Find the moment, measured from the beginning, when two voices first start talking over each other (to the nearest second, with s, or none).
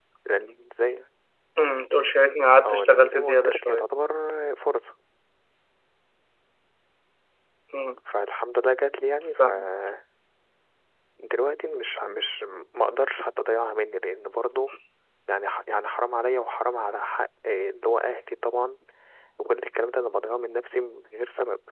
3 s